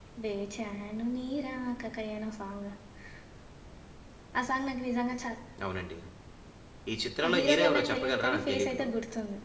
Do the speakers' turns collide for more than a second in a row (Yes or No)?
Yes